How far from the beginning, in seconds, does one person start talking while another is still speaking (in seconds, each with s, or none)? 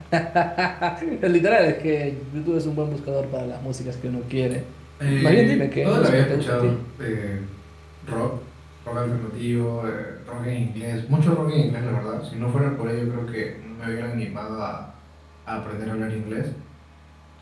5.1 s